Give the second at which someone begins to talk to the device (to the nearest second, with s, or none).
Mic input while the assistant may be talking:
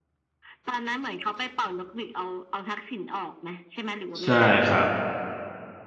4 s